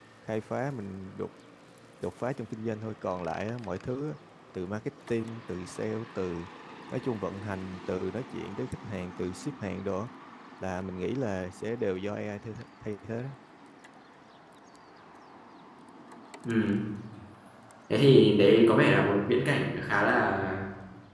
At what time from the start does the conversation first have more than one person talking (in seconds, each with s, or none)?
none